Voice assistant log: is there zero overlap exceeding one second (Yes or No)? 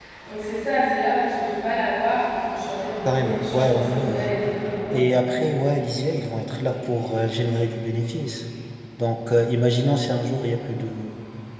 No